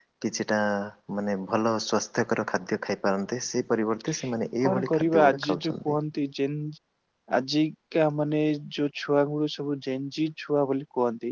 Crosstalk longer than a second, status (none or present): present